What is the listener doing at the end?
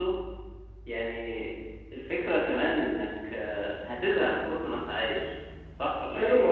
taking over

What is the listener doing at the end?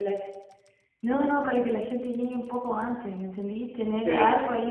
listening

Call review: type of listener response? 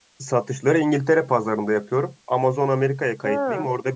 listening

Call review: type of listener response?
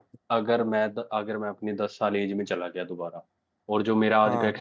listening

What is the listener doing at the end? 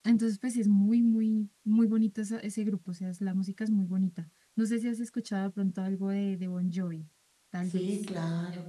taking over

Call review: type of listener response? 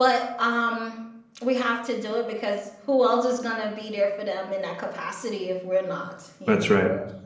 taking over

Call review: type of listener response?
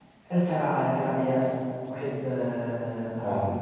listening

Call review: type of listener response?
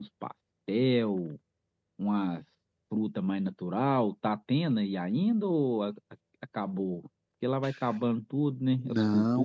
taking over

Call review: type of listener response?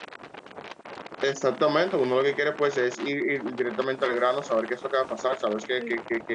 listening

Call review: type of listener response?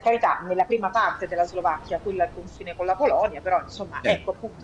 listening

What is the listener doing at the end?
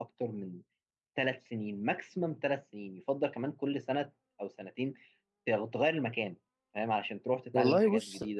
taking over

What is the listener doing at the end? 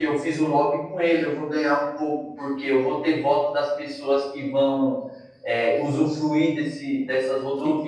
taking over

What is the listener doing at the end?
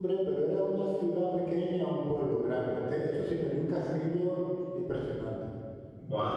taking over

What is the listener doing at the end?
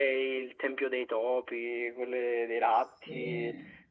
listening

